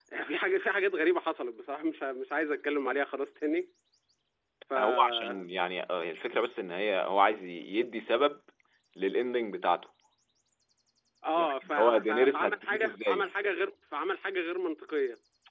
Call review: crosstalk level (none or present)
present